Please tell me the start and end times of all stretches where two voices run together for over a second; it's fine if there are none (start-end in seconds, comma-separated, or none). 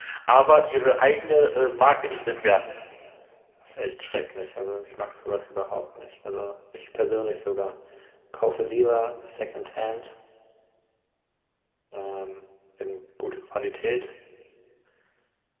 none